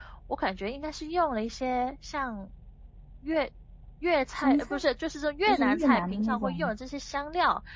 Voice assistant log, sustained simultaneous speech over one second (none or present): present